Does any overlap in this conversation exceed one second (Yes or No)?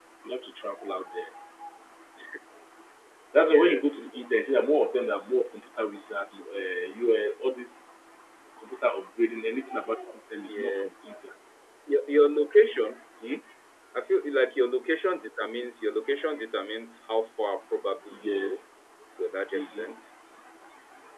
No